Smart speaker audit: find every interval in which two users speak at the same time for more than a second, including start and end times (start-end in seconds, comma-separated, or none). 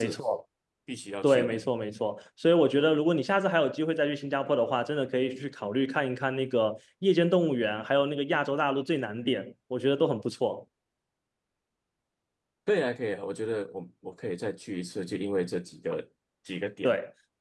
none